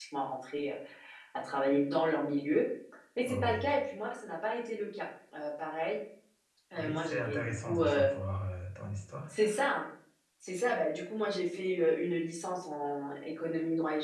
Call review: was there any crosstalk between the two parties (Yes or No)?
Yes